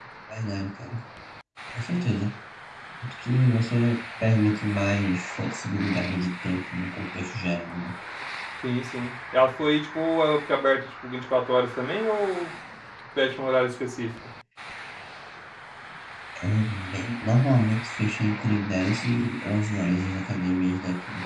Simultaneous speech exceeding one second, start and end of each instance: none

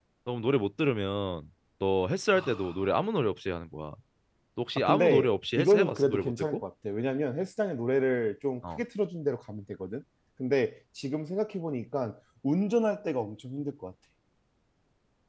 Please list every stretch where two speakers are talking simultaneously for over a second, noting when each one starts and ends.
4.8-6.6

